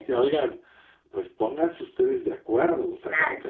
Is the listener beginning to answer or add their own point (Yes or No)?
No